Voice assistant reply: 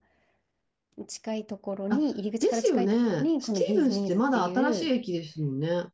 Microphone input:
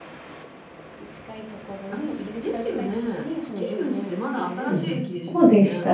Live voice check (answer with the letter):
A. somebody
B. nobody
A